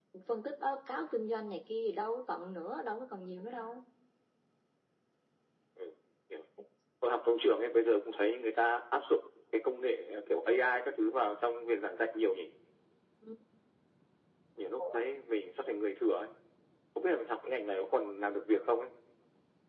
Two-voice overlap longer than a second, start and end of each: none

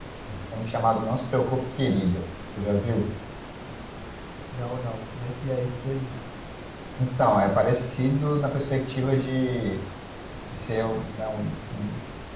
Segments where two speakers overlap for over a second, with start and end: none

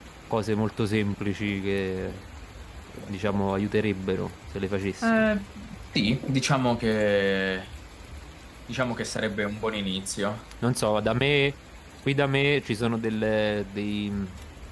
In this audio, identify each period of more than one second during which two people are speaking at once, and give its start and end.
none

